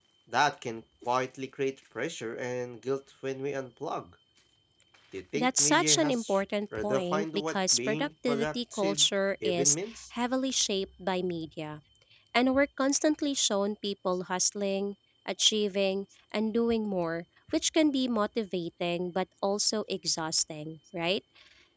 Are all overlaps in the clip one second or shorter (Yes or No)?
No